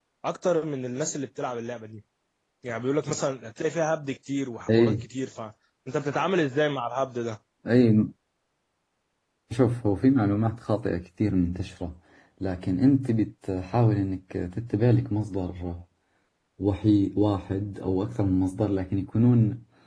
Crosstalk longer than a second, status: none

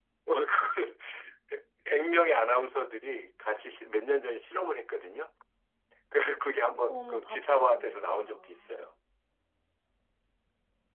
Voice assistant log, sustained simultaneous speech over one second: present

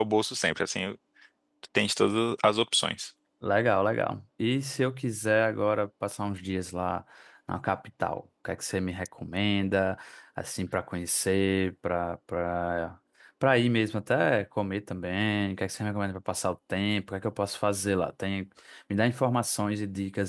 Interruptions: none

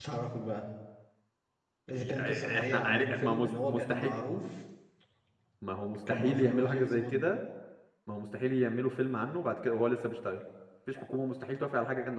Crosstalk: present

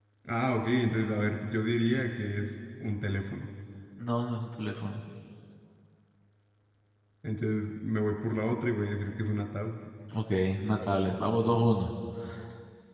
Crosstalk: none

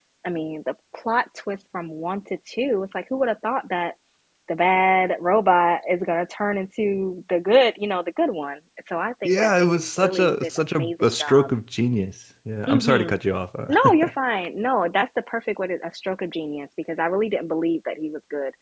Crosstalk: present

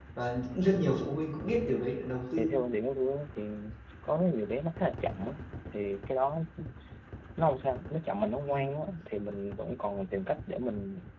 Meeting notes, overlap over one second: none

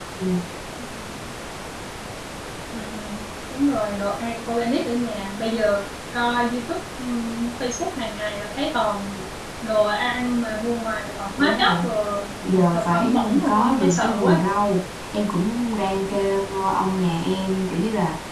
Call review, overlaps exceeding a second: present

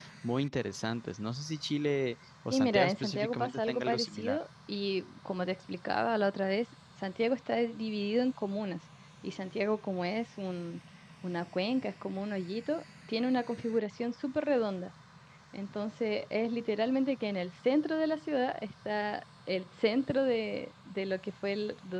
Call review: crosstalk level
present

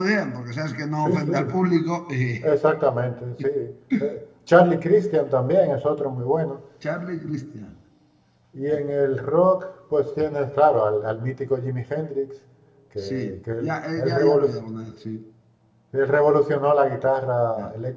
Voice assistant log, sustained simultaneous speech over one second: present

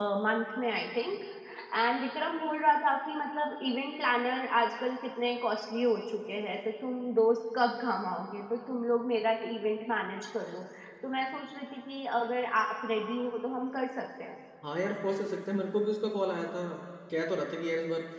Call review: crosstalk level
none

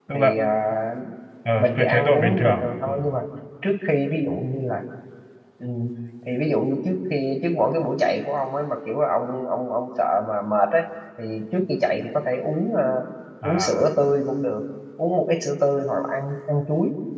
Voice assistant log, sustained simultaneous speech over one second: present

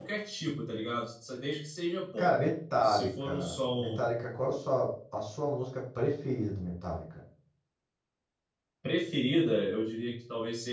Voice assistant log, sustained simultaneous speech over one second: present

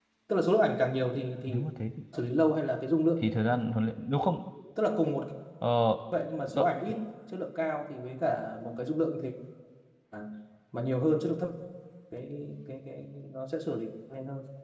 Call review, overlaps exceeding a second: none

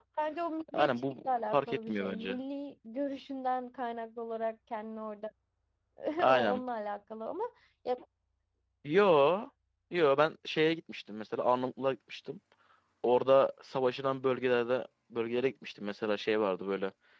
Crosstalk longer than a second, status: present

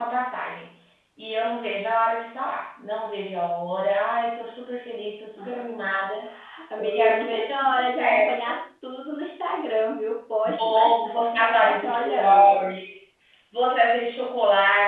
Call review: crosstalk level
present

